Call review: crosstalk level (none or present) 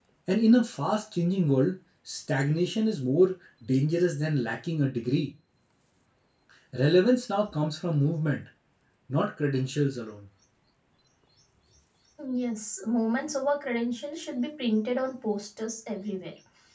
none